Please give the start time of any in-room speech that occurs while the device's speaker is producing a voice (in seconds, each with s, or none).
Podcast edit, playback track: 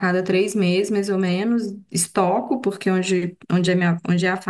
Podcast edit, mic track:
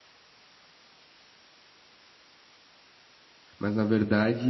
3.6 s